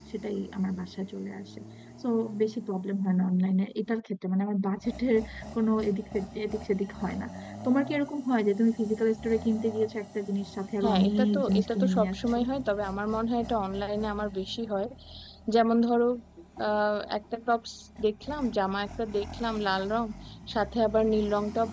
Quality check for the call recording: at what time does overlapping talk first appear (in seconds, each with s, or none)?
10.8 s